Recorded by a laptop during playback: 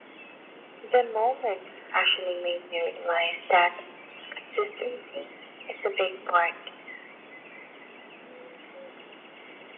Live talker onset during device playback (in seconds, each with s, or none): none